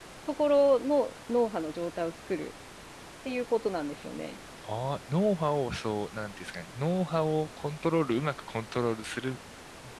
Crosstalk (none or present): none